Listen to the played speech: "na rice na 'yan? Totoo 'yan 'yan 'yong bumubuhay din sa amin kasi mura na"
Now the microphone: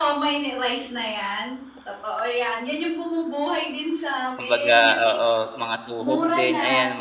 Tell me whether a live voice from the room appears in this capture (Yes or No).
Yes